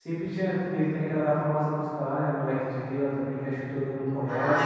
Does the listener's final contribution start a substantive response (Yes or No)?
Yes